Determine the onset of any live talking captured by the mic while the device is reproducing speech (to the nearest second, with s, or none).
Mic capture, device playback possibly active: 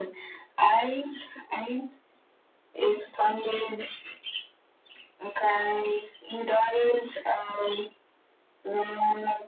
none